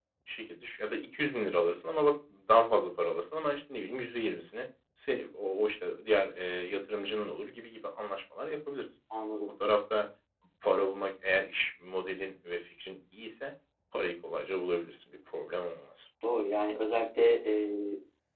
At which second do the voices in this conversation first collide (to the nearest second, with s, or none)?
none